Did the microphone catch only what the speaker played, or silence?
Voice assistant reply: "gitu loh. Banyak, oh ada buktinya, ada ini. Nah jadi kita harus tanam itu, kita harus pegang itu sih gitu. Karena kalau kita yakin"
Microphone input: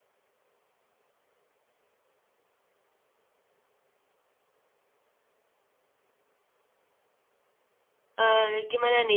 No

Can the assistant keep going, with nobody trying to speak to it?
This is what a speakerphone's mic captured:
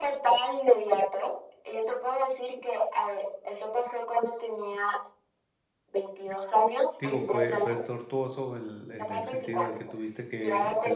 No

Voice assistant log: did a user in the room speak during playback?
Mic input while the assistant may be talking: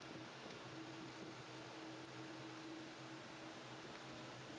No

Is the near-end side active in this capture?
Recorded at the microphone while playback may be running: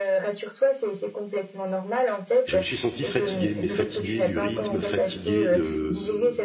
Yes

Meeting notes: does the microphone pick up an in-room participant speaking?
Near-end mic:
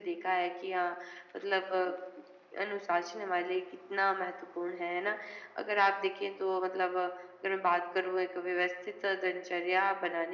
No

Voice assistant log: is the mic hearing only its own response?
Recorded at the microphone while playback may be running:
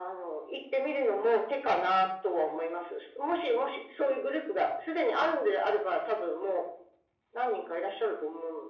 Yes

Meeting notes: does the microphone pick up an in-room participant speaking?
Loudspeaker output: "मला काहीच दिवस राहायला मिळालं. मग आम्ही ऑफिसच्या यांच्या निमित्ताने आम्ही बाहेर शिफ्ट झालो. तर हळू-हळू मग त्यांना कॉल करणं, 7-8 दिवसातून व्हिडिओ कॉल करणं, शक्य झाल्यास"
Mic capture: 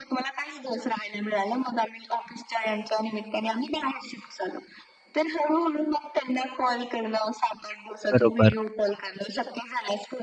Yes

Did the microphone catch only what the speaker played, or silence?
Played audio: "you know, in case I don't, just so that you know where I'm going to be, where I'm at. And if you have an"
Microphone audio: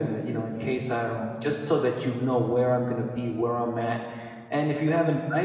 Yes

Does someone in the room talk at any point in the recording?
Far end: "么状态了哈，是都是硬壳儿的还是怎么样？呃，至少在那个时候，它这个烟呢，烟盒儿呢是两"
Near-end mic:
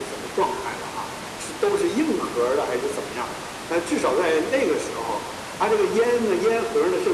No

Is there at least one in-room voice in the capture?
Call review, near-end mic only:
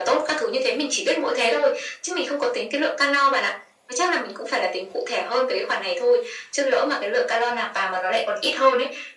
No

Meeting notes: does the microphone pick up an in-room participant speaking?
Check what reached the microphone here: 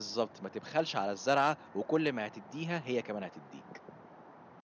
Yes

